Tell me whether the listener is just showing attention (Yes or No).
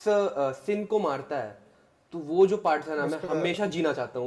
Yes